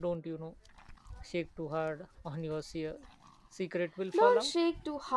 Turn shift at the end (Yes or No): Yes